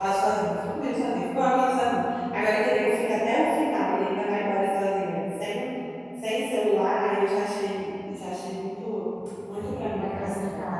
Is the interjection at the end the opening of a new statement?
Yes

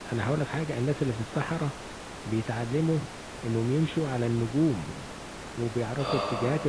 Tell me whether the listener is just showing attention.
Yes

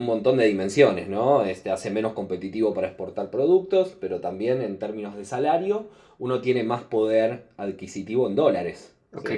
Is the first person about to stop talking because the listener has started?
Yes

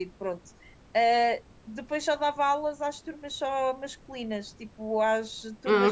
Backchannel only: Yes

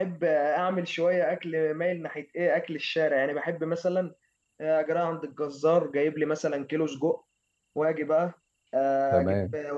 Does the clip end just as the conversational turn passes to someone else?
No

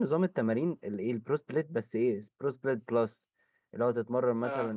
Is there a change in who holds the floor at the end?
No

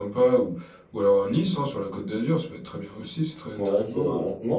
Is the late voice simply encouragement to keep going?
No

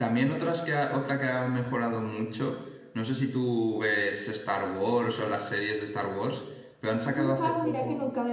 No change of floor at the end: No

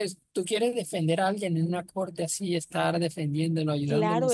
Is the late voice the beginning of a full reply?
Yes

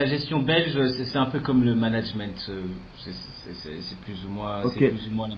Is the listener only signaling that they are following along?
No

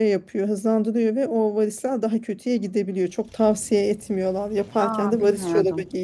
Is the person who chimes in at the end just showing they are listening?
Yes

